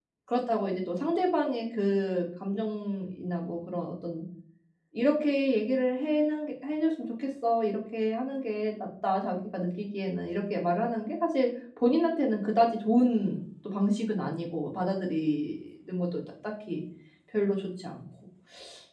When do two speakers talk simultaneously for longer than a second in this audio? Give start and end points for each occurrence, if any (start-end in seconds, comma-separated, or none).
none